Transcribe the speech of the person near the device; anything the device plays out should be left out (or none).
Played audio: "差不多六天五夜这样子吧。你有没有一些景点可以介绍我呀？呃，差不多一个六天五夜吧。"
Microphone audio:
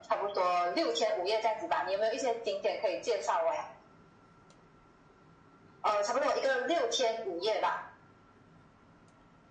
none